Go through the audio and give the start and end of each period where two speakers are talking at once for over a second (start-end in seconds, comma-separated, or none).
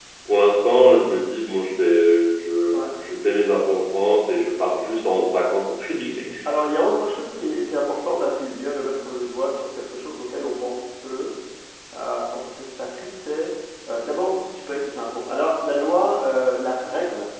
none